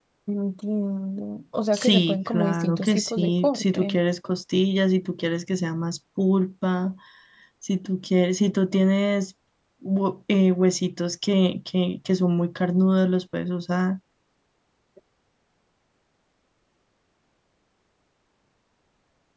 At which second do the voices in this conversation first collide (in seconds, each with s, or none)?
1.7 s